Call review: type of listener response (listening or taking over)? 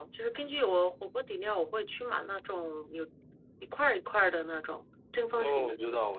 taking over